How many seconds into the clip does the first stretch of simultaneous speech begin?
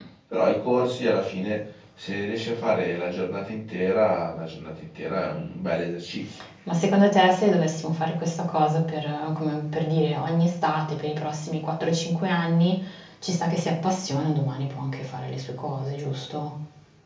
none

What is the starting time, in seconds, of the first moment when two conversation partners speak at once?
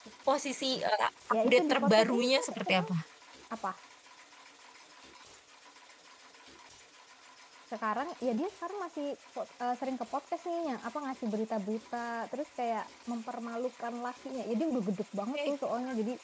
1.3 s

